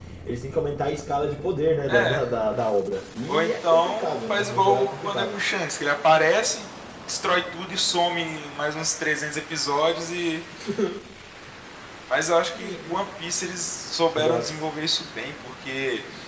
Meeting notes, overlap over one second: present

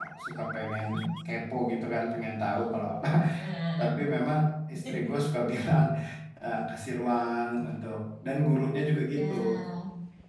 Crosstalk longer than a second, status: none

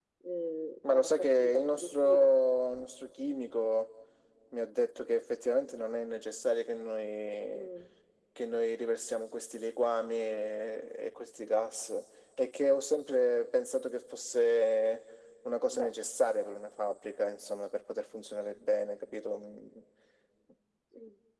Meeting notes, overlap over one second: present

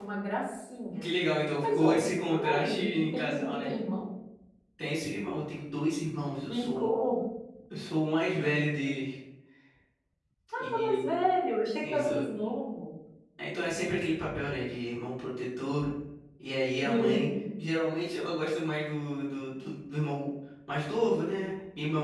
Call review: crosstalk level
present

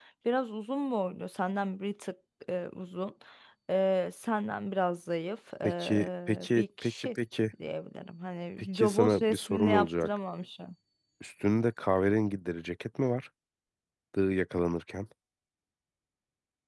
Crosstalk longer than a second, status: present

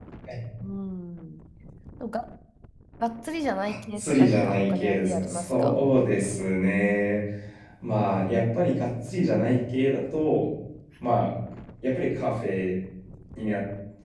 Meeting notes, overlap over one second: present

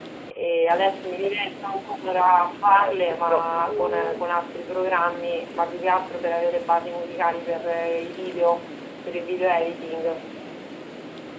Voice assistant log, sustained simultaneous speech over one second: present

